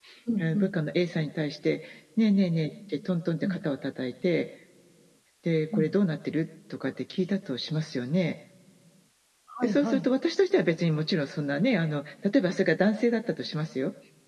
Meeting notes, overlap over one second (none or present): none